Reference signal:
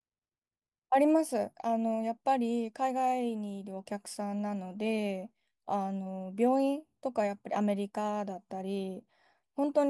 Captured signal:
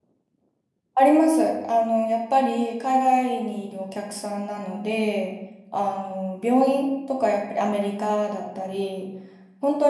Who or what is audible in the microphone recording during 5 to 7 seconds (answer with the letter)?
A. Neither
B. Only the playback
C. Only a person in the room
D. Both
B